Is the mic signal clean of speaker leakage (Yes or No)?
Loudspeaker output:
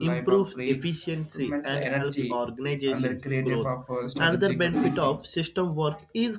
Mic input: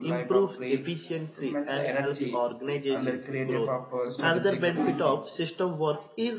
No